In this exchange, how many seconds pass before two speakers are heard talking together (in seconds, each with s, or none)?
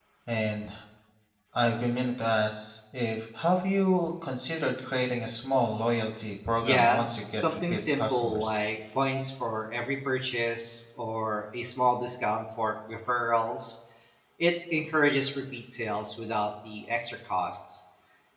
6.6 s